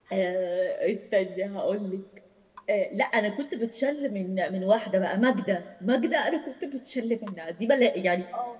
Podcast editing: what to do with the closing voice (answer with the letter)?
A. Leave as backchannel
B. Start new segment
A